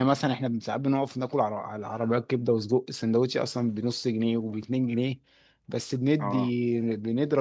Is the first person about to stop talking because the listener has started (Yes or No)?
No